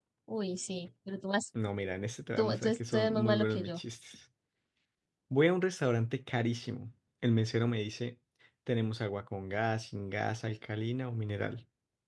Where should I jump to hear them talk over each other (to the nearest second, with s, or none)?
2 s